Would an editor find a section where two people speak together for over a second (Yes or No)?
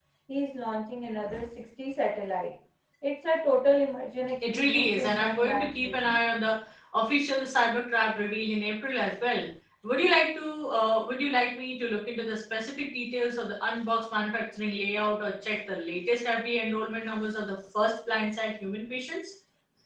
Yes